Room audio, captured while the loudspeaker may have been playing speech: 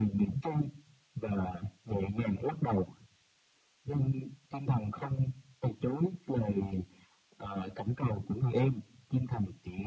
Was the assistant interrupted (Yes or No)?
No